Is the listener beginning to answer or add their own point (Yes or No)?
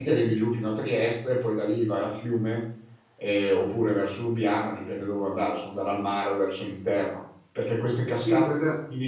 Yes